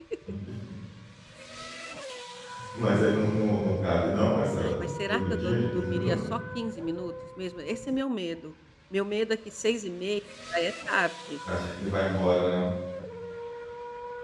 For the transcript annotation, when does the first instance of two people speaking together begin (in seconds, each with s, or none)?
4.6 s